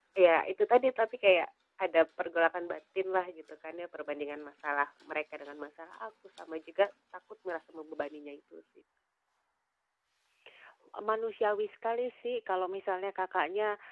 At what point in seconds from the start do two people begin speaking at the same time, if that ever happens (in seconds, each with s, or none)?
none